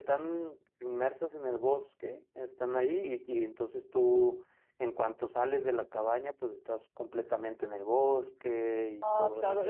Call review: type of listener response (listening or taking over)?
taking over